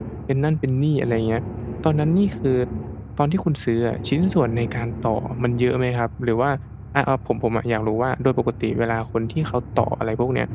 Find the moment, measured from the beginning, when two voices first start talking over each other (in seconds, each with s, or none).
none